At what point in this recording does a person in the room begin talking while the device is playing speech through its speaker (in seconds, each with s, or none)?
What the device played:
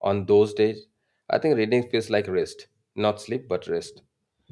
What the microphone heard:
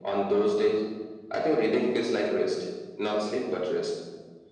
none